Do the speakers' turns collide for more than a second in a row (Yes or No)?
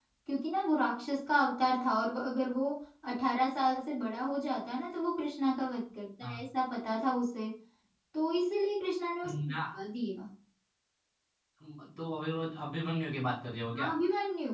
No